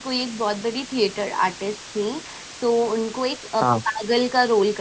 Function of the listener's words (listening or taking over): listening